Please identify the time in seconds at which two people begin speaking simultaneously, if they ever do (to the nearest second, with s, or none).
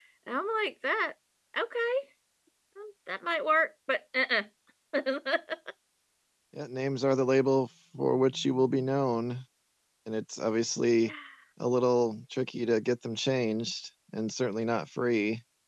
none